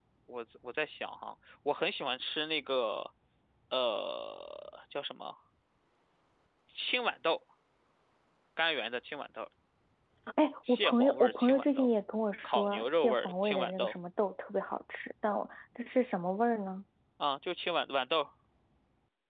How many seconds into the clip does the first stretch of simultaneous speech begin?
10.7 s

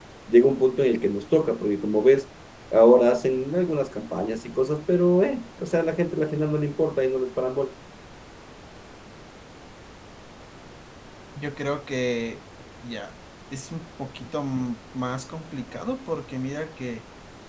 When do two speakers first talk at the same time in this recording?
none

